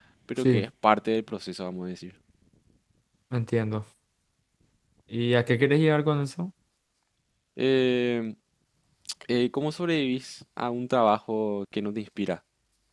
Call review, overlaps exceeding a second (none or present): none